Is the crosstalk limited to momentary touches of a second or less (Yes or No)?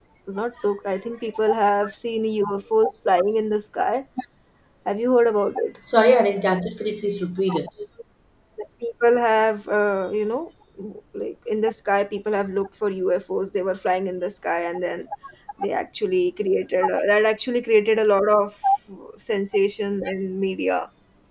Yes